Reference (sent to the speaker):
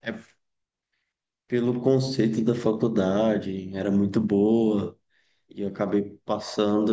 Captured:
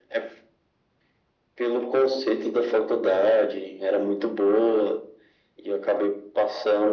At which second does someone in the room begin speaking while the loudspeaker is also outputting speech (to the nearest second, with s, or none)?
none